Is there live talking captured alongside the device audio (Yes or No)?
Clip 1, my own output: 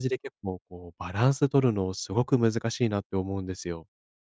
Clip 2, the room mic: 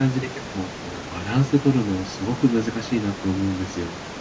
No